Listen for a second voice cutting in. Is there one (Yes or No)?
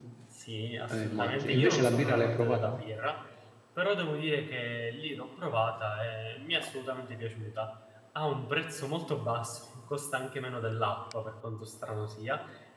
Yes